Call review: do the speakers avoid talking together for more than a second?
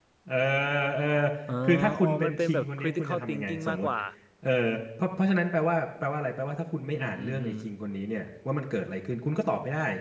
No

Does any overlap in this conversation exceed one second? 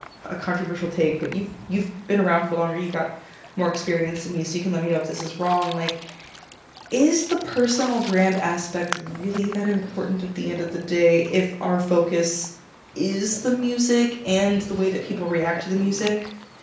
No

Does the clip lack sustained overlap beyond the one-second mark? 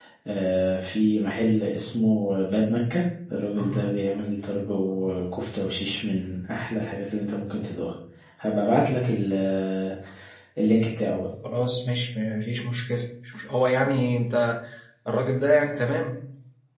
Yes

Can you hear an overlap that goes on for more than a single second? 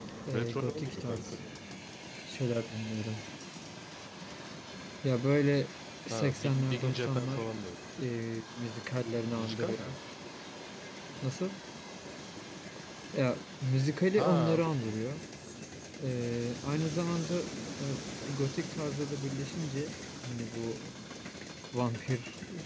Yes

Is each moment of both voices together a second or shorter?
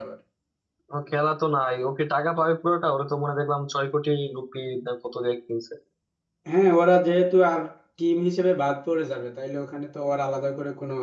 Yes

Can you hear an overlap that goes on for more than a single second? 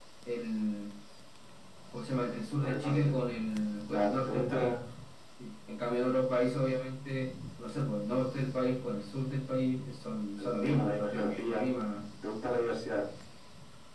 Yes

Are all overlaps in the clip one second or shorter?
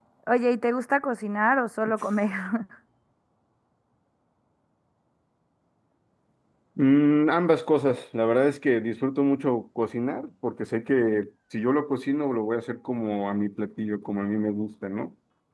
Yes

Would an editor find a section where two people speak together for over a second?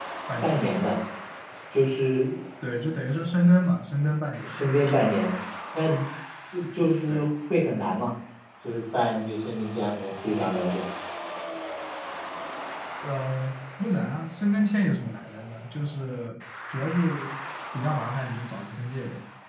No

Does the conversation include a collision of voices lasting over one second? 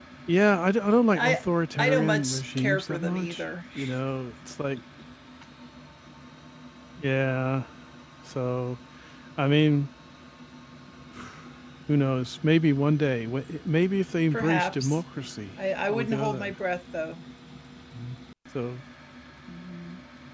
Yes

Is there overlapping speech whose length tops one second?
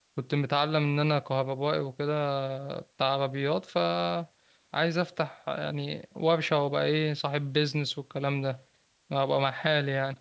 No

